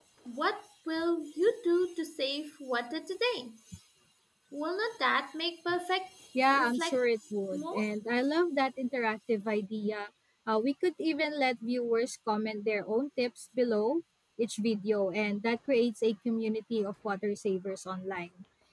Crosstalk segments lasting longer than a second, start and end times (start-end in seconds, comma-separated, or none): none